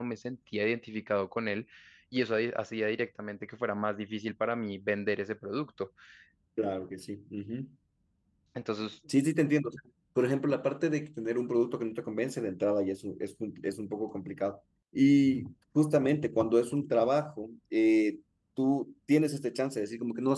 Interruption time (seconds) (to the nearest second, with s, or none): none